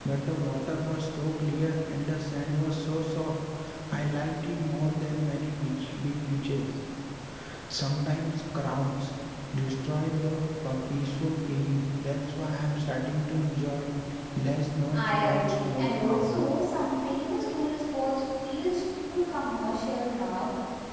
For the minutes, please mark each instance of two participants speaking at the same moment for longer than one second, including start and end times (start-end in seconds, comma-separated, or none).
14.9-16.3